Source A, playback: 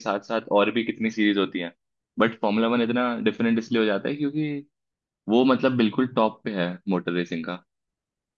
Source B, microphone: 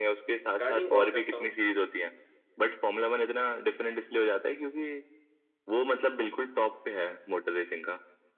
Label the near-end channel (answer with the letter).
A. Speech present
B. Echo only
A